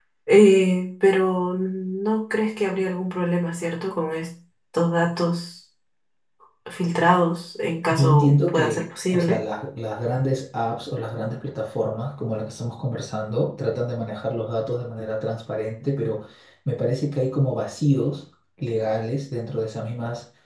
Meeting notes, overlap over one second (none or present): present